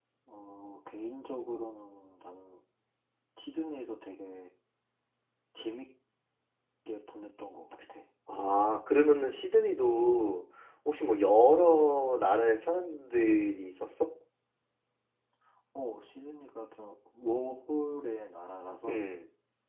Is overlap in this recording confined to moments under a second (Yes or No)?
Yes